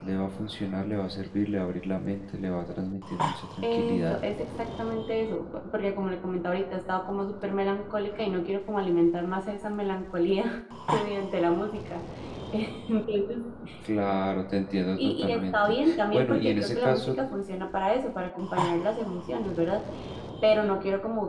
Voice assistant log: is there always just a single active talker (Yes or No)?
No